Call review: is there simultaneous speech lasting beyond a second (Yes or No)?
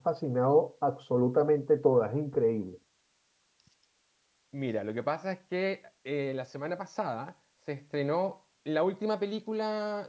No